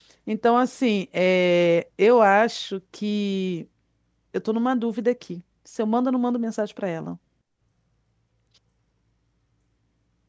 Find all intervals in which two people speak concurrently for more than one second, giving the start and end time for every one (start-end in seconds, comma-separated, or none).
none